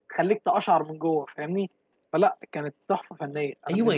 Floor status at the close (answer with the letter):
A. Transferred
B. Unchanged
A